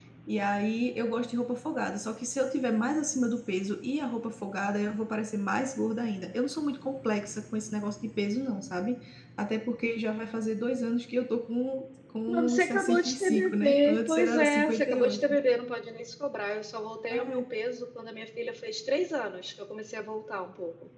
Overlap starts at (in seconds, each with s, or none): 12.3 s